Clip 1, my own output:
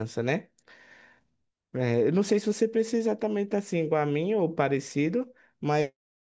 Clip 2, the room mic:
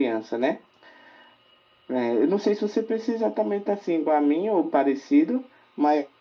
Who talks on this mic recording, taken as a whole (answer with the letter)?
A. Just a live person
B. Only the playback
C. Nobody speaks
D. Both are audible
B